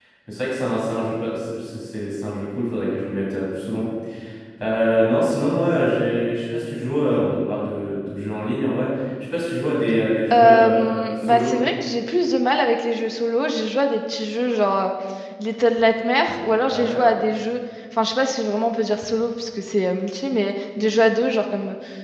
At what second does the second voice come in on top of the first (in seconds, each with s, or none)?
10.3 s